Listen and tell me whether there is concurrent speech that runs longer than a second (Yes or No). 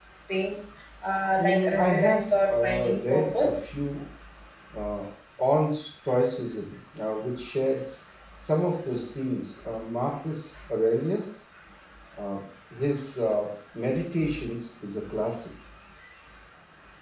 Yes